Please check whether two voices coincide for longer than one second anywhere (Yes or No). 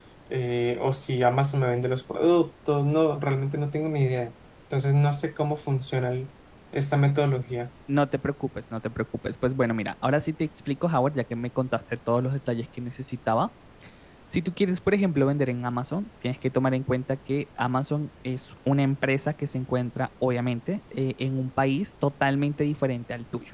No